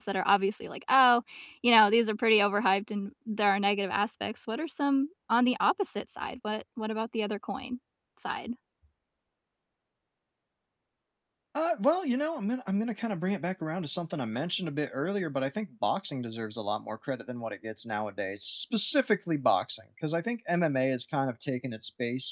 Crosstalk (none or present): none